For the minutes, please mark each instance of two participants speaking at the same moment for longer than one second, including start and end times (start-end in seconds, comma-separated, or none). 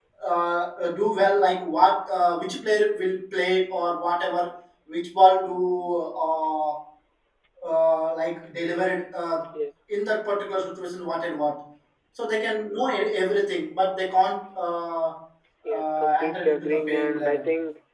15.7-17.4